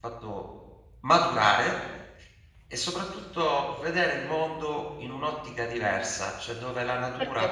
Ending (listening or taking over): taking over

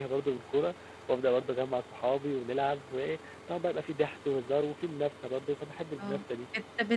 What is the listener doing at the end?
taking over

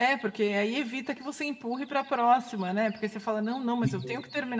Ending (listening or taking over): listening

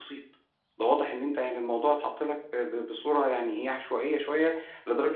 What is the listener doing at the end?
listening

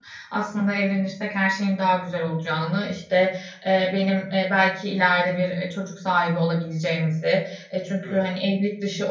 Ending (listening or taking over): listening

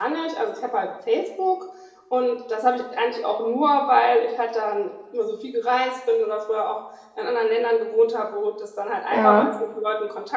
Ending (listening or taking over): listening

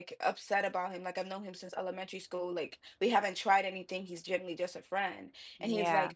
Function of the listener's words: listening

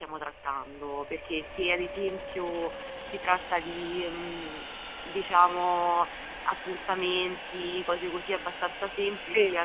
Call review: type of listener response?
listening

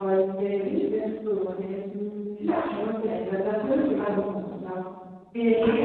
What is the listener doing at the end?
listening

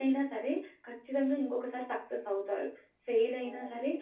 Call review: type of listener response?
listening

